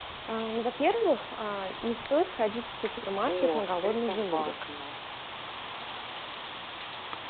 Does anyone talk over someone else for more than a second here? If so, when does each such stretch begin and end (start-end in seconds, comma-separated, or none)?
3.3-4.5